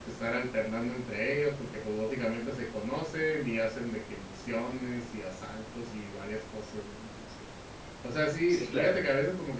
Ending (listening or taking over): listening